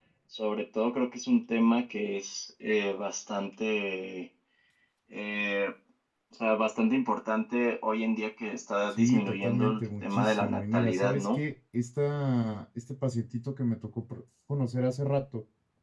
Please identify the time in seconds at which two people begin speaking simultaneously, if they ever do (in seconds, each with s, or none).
8.9 s